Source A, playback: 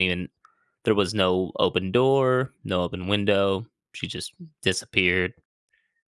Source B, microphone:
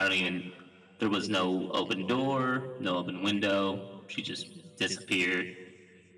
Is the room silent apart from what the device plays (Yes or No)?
Yes